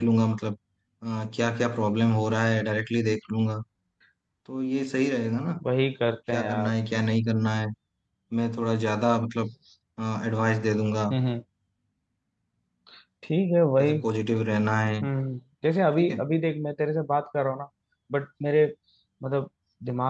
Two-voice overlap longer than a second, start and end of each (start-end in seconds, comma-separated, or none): none